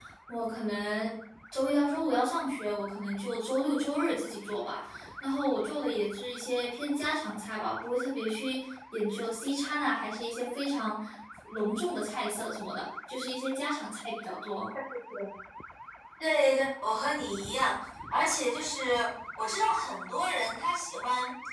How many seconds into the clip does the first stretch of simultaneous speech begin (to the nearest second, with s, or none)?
none